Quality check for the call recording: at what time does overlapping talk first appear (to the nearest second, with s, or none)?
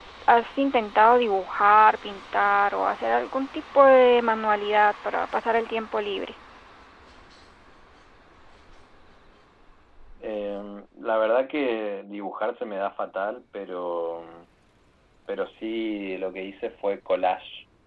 none